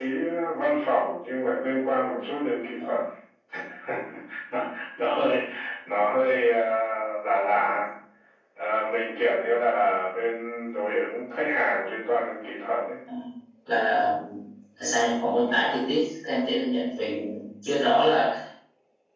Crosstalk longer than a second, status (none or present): none